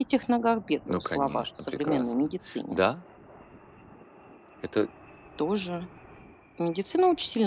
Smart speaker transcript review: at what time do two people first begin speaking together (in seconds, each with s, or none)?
0.9 s